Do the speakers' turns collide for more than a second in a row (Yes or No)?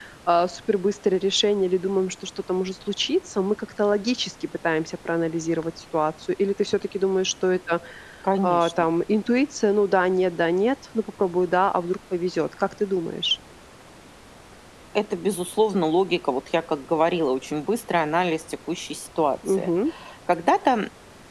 No